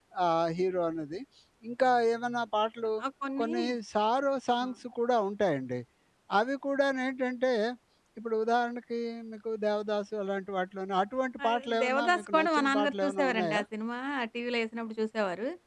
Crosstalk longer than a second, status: present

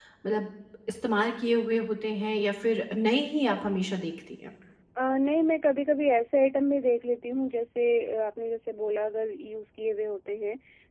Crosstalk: none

